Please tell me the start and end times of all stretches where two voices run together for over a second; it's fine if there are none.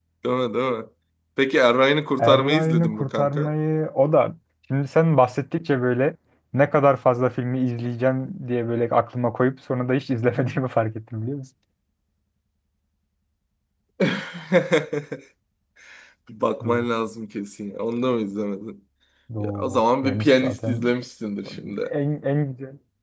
2.2-3.5, 19.4-20.9

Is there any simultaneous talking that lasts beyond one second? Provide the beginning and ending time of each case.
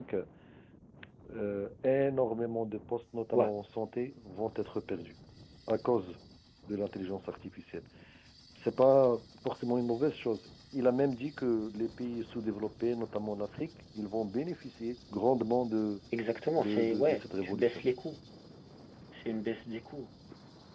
16.6-17.9

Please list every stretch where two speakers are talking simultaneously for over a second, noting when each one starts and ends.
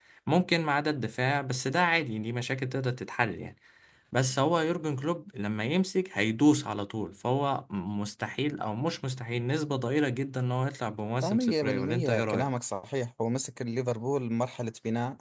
11.2-12.6

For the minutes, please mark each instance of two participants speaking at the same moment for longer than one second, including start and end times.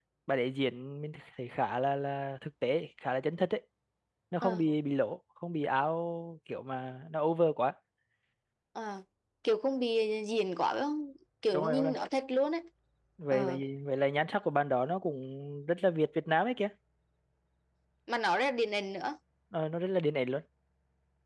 none

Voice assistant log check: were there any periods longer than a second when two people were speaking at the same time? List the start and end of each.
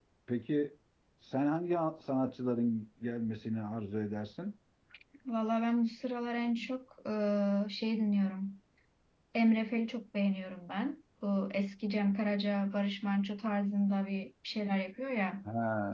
none

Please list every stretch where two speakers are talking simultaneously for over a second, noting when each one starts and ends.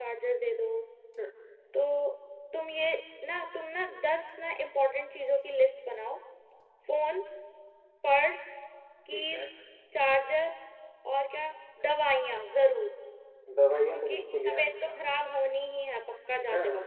13.9-15.3

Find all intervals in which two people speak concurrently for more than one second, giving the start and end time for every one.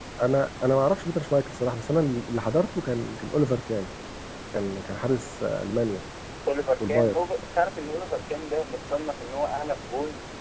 none

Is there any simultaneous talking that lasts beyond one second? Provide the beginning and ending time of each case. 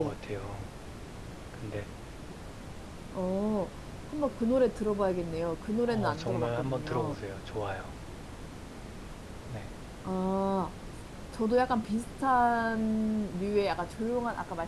5.9-7.2

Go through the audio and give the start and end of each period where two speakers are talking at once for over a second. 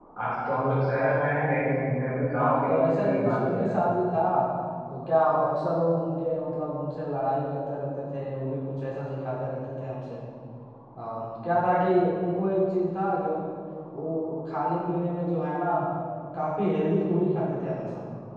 2.4-3.8

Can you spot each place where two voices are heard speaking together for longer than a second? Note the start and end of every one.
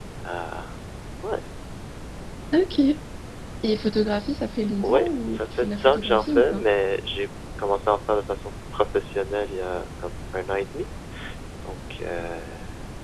4.8-6.6

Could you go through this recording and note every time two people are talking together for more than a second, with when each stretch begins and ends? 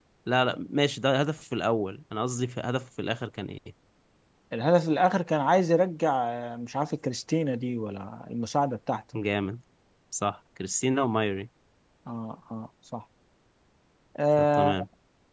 none

